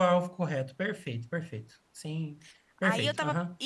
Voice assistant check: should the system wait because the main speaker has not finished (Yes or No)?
No